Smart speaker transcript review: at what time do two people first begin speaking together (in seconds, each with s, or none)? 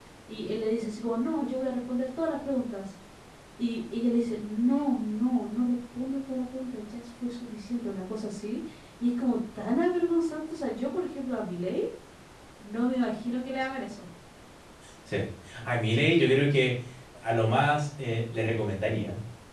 none